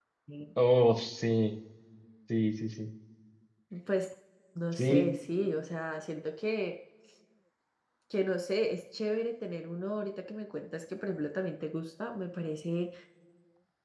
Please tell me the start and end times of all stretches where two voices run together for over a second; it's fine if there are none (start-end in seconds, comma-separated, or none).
none